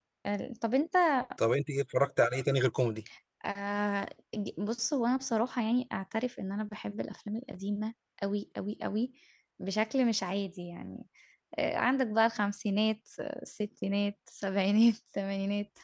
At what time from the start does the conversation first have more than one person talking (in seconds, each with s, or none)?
none